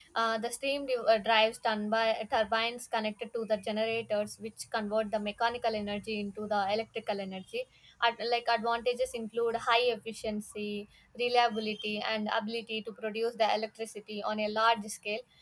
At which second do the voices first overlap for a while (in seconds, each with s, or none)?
none